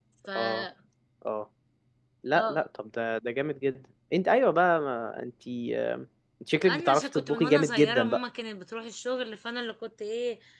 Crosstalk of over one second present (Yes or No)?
Yes